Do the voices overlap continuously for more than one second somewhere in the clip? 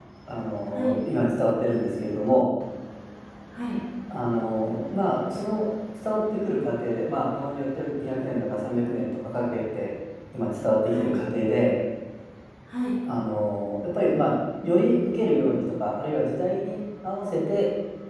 No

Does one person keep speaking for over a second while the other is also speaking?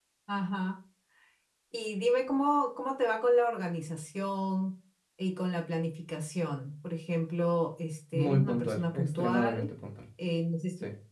Yes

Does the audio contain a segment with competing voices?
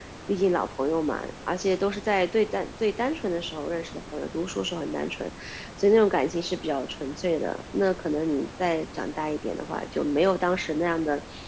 No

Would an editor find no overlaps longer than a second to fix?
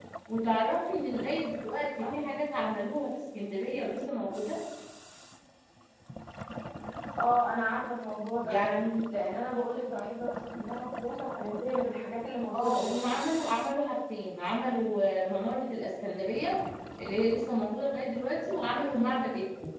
Yes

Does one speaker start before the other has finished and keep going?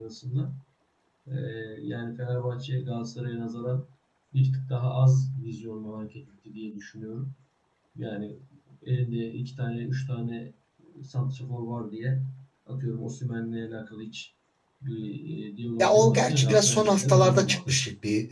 Yes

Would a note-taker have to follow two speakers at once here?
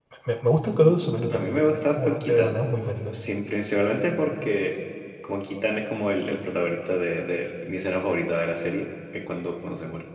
Yes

